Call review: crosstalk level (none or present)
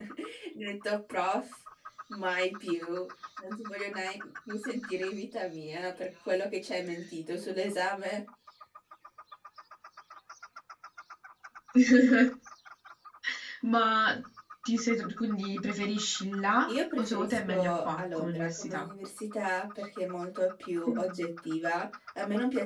present